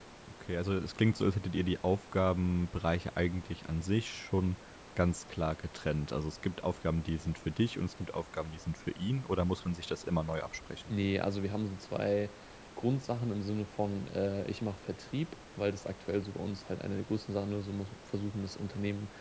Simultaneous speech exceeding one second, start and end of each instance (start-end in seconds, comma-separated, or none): none